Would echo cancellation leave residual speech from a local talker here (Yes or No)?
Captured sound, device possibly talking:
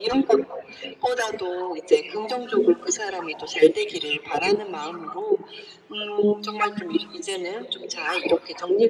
No